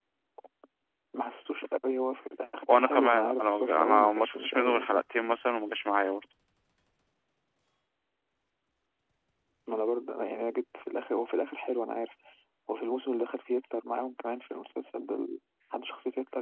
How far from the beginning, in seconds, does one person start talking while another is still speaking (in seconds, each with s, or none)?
2.6 s